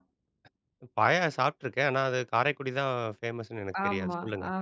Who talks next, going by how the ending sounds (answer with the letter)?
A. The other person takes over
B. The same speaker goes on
A